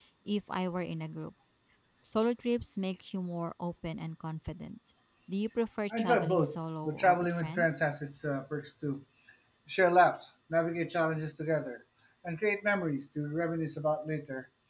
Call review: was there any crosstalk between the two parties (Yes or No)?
Yes